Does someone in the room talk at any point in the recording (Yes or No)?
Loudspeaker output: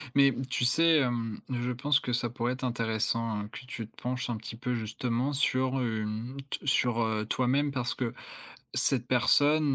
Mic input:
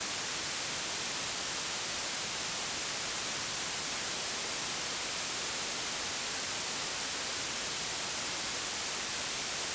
No